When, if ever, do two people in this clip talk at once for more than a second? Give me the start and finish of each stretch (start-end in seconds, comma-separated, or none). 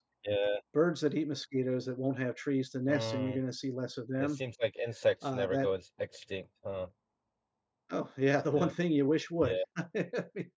none